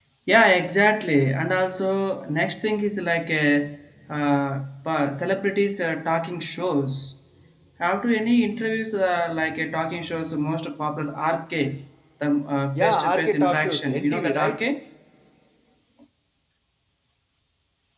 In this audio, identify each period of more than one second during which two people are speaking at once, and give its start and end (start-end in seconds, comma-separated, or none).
12.8-14.6